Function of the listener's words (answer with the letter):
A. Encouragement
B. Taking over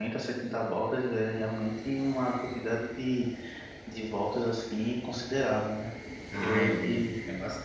B